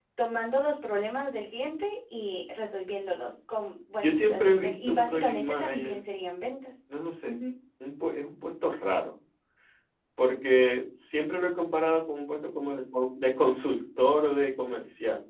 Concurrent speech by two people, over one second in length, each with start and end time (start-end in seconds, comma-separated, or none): 4.0-6.0